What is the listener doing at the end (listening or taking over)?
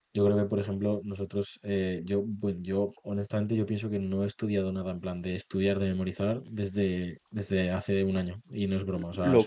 taking over